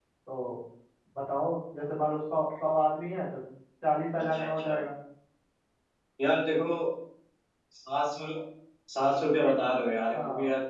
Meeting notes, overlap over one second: none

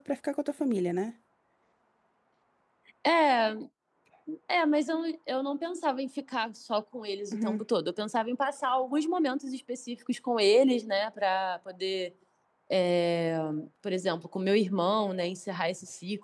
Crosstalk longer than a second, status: none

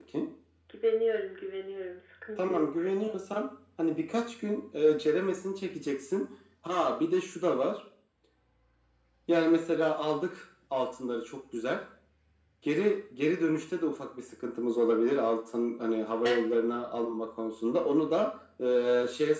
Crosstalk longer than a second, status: none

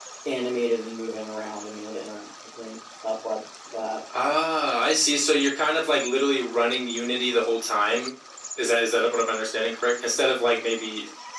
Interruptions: none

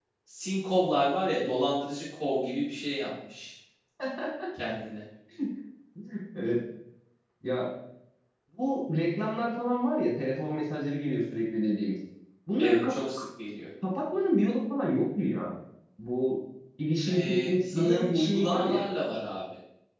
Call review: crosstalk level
present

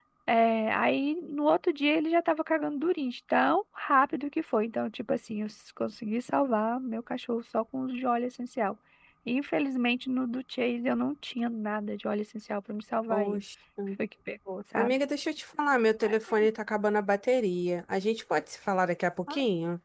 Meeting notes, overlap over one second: none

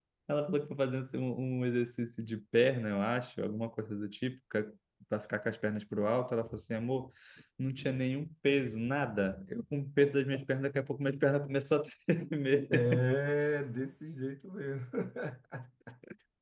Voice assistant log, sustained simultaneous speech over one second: none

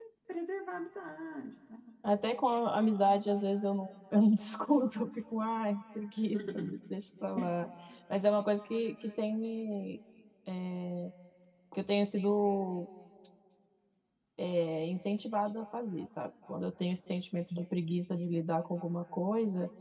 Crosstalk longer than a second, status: none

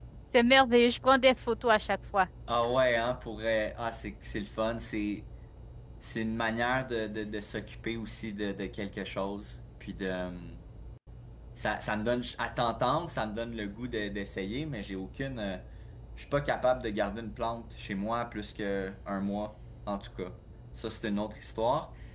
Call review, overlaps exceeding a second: none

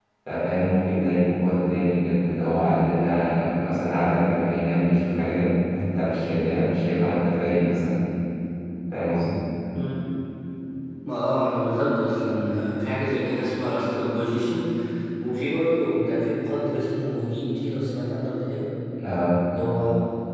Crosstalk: none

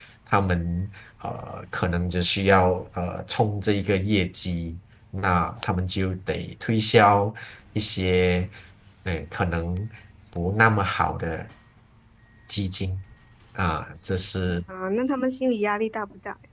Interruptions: none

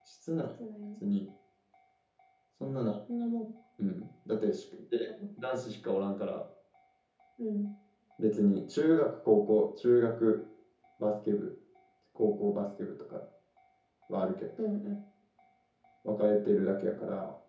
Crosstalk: none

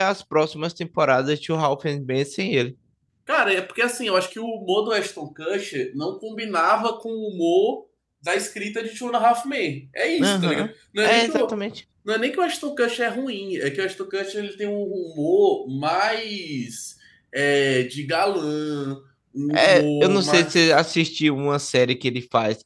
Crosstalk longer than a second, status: present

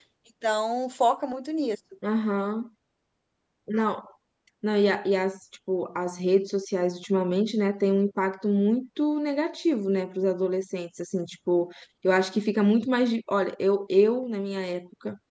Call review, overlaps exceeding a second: none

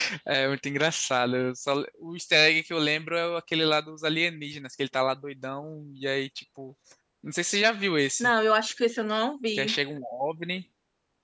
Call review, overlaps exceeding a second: none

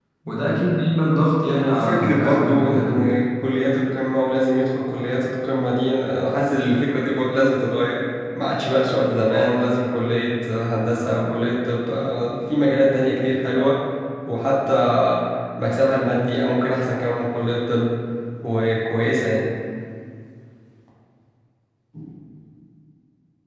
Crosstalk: present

